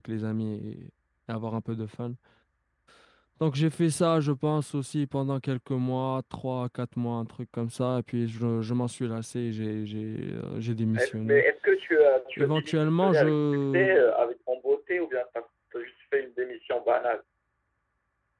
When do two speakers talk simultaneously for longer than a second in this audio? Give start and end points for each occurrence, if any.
12.4-14.1

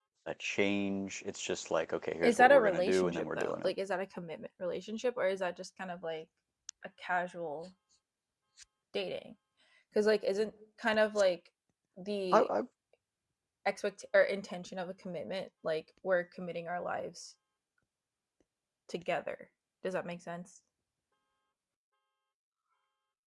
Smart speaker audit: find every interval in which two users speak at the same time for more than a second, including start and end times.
2.2-3.7

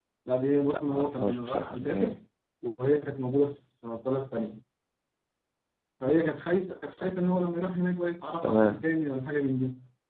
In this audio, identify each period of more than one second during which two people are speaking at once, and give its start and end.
0.7-2.2

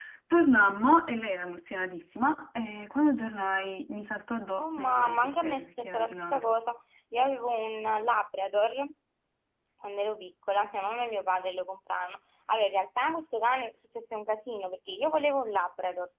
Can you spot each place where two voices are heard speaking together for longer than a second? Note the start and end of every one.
4.6-6.5

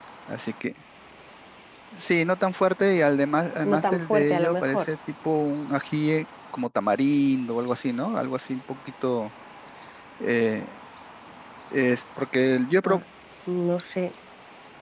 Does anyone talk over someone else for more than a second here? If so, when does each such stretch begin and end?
3.6-4.9

